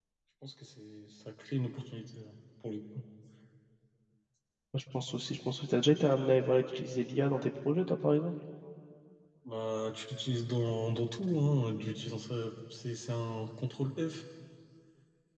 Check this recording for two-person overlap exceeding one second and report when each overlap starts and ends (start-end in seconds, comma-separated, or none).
none